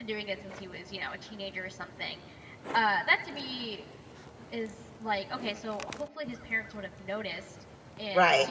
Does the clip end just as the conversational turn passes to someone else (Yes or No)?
No